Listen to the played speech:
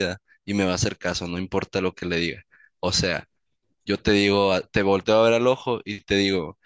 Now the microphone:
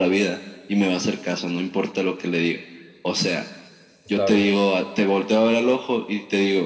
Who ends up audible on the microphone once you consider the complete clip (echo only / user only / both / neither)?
both